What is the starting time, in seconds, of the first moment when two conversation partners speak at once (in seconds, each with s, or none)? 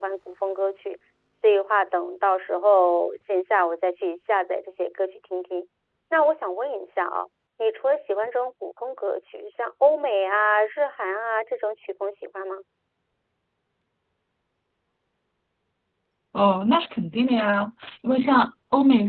none